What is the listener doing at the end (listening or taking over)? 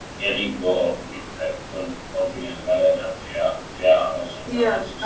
taking over